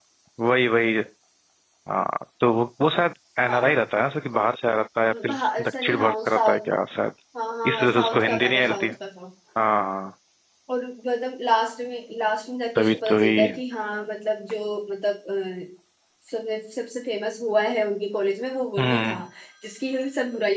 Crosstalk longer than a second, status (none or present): present